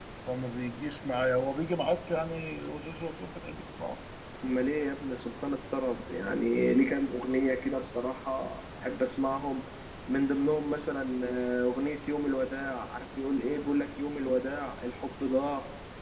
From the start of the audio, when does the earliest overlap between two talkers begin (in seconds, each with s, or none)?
none